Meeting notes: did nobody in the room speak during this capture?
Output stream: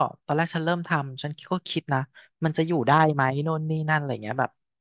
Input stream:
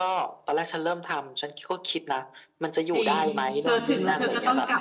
No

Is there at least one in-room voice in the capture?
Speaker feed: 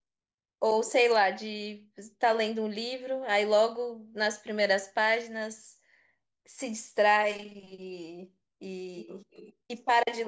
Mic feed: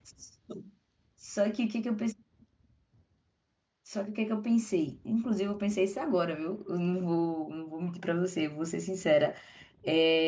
Yes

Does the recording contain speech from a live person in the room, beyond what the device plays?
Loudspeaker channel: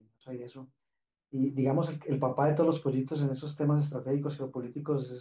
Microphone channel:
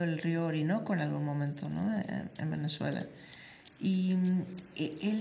Yes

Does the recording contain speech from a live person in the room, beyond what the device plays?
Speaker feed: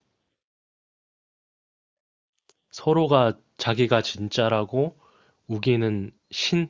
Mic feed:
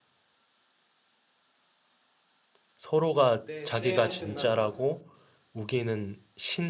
Yes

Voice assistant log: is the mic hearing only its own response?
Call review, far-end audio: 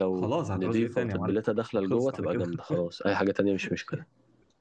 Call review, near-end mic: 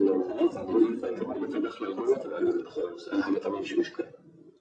Yes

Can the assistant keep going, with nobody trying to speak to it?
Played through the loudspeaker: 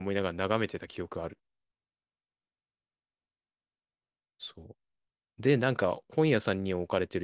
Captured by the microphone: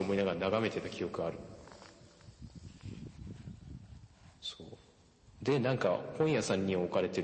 Yes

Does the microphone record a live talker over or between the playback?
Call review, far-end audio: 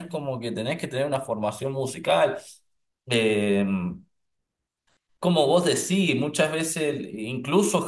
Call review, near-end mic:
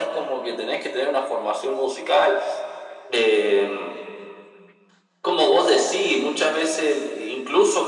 No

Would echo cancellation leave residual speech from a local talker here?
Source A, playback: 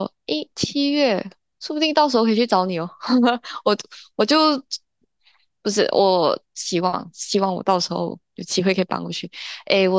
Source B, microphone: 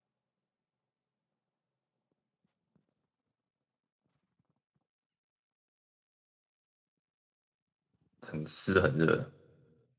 Yes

